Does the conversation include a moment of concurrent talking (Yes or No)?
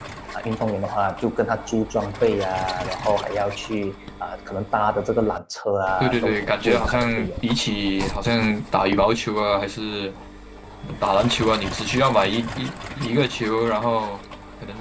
Yes